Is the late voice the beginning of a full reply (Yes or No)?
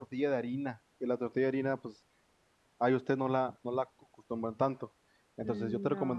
No